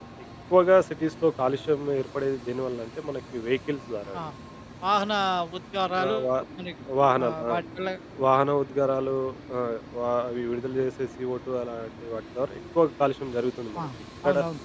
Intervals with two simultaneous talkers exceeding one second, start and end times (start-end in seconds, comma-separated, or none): none